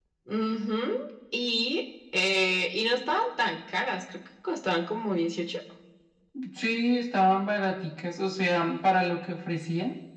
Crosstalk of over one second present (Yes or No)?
No